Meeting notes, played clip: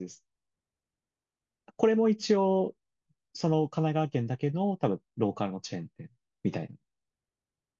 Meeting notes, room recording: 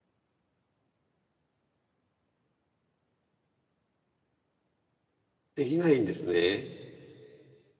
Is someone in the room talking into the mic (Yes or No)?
Yes